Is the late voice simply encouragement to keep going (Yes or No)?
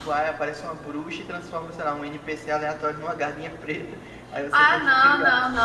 No